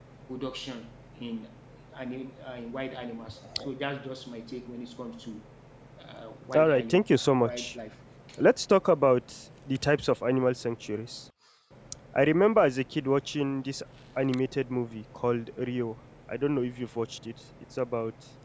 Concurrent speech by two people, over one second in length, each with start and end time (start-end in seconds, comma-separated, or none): 6.5-7.8